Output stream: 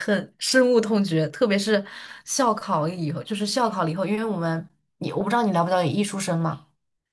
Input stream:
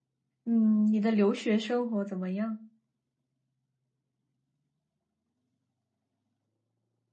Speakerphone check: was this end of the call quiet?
No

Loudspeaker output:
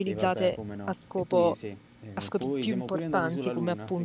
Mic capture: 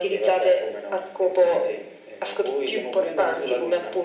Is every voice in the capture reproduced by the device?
Yes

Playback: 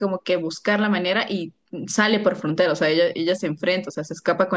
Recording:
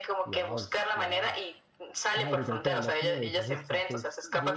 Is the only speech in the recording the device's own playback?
No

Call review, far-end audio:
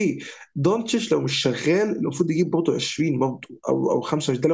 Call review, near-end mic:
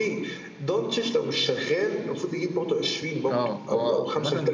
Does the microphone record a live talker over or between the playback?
Yes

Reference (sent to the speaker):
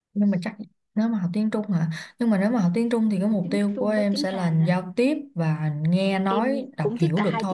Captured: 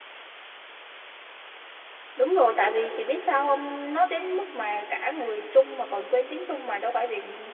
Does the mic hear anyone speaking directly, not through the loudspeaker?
Yes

